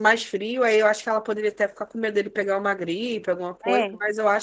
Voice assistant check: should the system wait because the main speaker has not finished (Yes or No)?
No